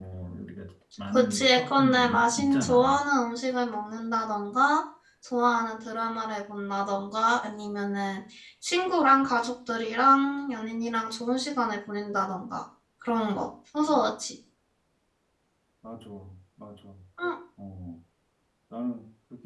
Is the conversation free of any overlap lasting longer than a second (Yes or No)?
No